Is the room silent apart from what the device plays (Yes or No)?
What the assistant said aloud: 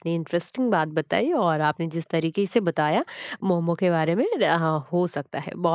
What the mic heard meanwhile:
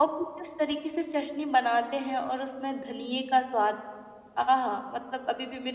No